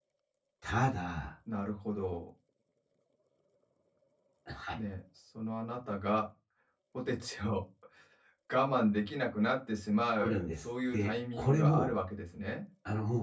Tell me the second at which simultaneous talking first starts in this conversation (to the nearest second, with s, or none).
10 s